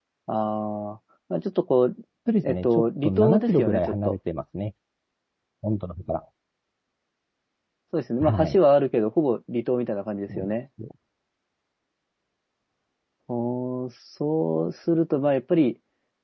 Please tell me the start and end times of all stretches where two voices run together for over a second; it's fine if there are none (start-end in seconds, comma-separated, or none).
2.4-4.2